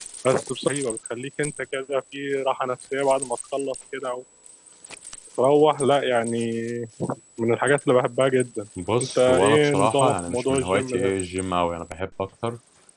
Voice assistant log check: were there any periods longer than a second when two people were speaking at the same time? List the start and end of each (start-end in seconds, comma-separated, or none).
9.0-11.1